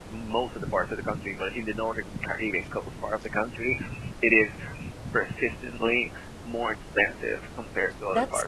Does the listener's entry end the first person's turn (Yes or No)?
Yes